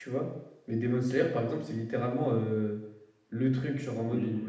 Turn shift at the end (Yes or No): No